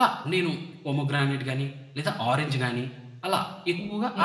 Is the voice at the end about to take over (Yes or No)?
Yes